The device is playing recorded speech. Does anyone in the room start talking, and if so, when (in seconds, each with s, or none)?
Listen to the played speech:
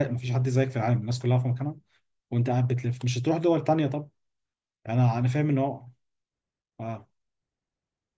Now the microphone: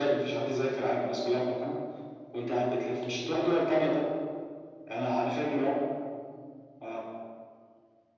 none